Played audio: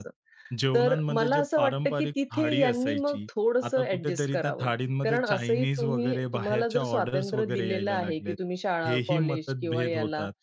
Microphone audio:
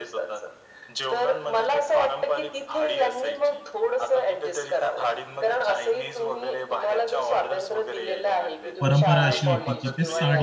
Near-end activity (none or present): present